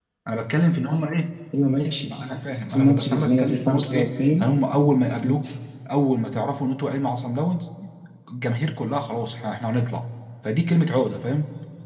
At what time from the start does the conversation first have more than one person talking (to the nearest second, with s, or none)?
3 s